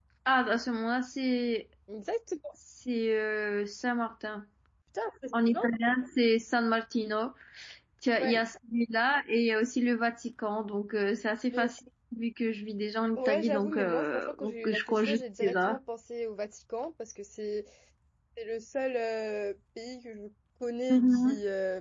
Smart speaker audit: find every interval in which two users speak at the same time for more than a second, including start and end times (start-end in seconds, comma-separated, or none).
13.2-15.8